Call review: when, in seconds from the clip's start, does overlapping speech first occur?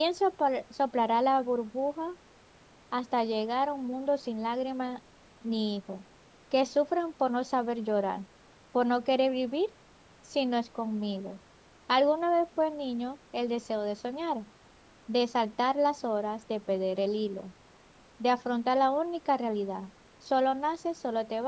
none

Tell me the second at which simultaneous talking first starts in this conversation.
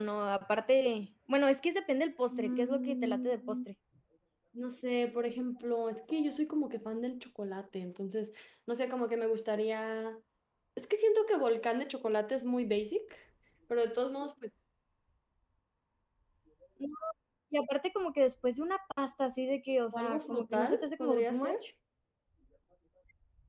2.3 s

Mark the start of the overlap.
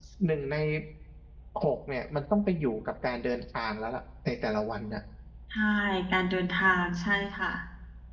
none

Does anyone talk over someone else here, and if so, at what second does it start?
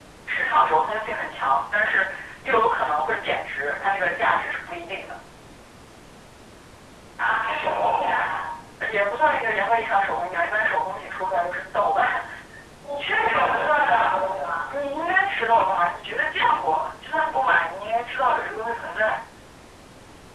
none

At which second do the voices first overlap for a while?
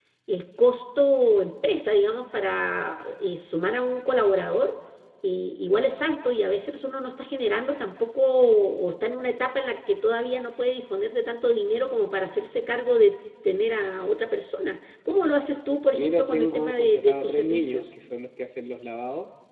15.9 s

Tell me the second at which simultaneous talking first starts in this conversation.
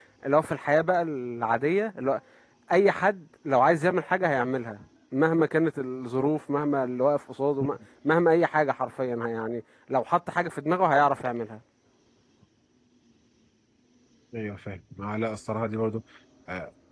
none

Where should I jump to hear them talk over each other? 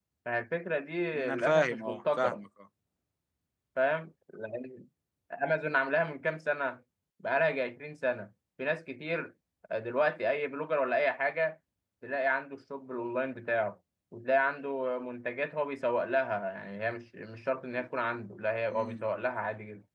1.1 s

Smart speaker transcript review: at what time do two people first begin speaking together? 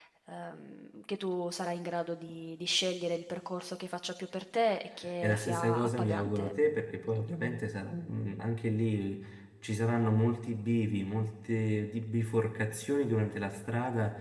5.2 s

